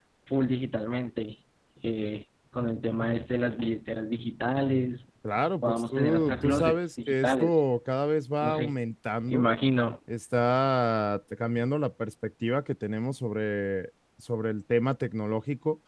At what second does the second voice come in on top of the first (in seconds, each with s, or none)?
5.6 s